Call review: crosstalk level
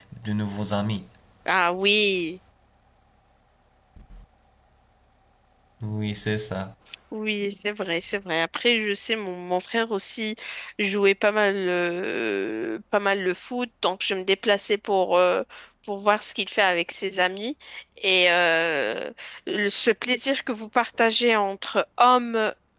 none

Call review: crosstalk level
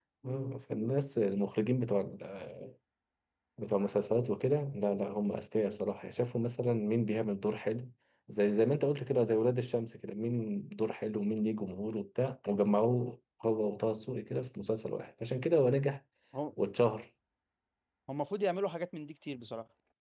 none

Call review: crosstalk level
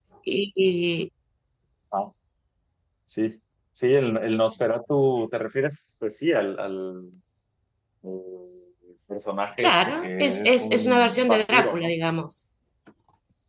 present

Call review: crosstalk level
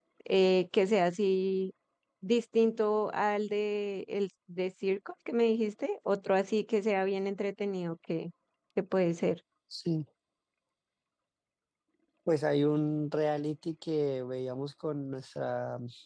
none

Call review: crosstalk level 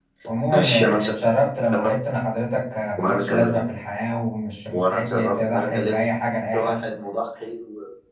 present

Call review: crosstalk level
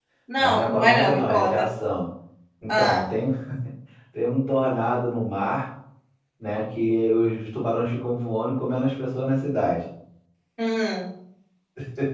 present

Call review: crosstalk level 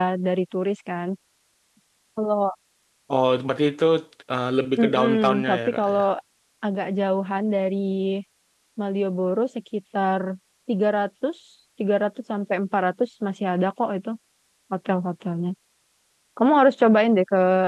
present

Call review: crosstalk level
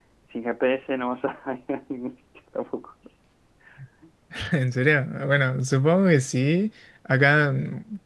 none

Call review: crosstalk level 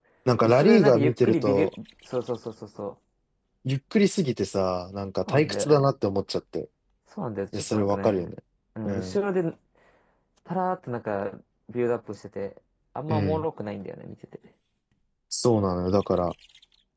present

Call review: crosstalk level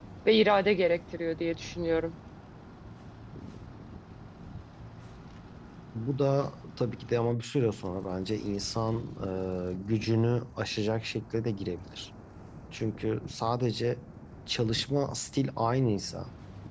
none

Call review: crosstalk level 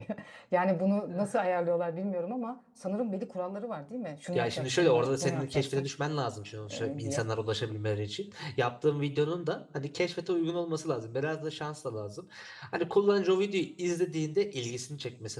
present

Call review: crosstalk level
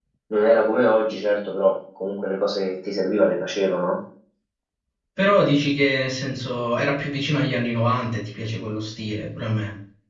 none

